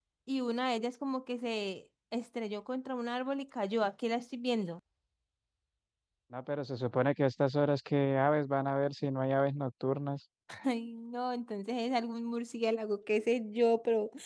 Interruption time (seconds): none

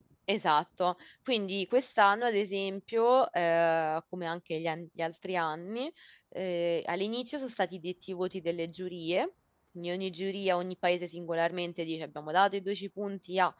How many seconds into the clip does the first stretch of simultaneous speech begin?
none

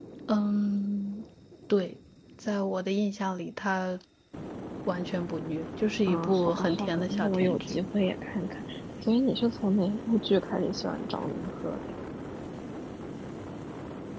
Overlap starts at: 6.1 s

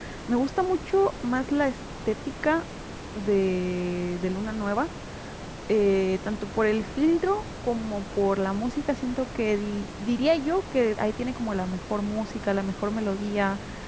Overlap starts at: none

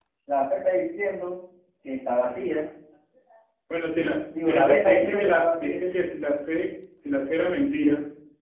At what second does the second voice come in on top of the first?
4.0 s

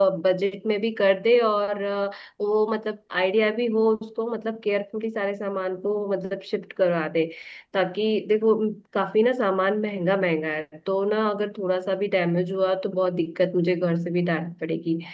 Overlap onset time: none

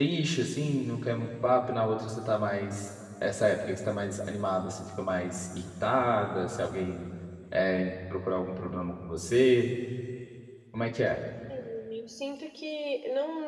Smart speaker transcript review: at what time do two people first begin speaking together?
none

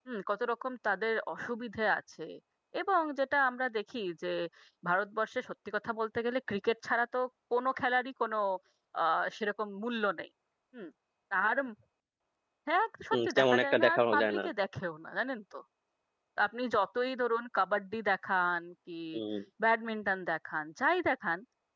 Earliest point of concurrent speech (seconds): 13.1 s

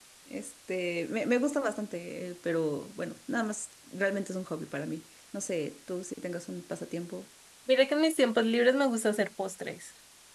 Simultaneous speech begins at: none

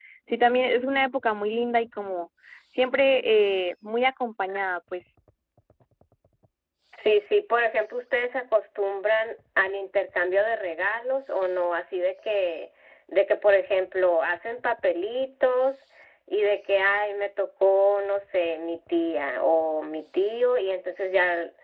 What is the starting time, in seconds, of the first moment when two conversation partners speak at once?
none

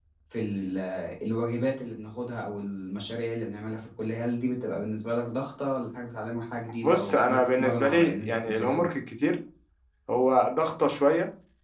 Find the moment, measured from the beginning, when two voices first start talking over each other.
6.7 s

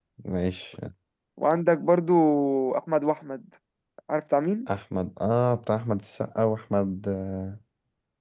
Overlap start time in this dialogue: none

